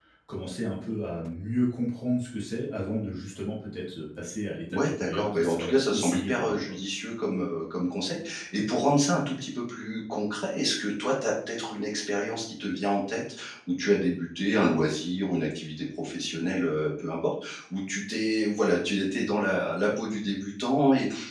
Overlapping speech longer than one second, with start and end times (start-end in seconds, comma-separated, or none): 4.7-6.6